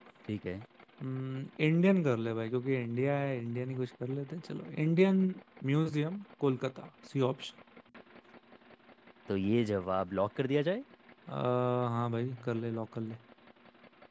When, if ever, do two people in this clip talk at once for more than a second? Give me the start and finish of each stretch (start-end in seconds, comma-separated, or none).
none